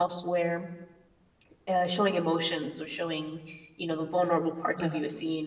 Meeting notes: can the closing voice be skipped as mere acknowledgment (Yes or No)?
Yes